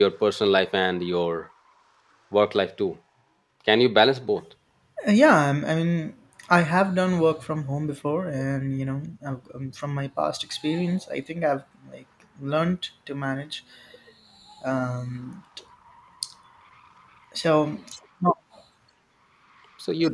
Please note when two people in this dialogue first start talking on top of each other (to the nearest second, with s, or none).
none